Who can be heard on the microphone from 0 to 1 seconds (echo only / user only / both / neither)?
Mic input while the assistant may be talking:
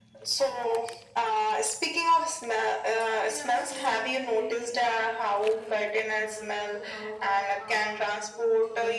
echo only